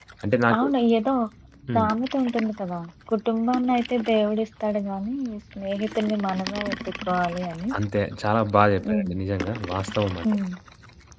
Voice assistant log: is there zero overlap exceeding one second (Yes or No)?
Yes